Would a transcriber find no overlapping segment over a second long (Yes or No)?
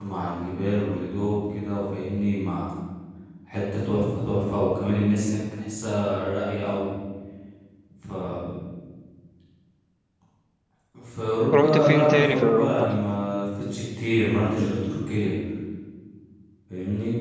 No